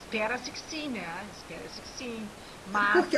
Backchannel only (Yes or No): No